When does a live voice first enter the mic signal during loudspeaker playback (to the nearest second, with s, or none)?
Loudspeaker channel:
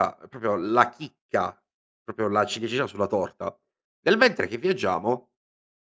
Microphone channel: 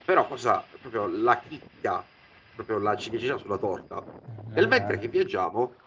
4 s